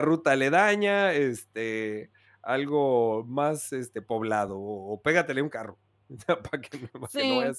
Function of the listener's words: taking over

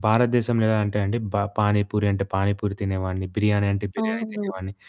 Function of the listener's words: taking over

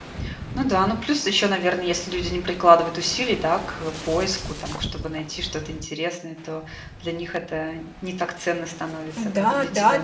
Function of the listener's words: taking over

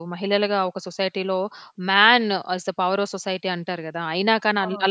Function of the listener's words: listening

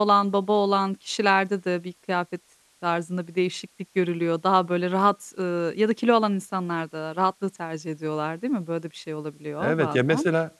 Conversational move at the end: taking over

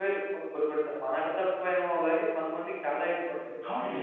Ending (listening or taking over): taking over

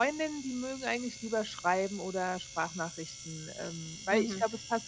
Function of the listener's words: taking over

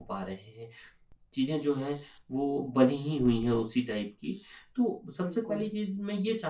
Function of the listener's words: listening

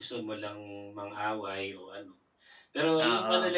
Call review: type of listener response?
listening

